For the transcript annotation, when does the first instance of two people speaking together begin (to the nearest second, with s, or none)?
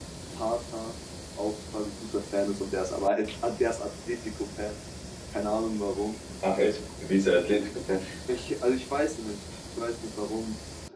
none